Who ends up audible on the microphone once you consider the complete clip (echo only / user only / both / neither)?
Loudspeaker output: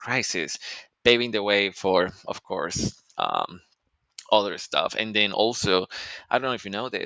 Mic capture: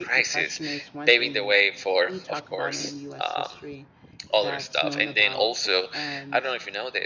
both